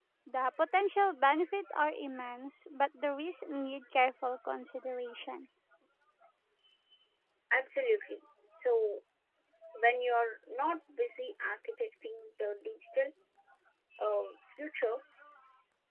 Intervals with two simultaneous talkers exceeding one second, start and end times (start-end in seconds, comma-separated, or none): none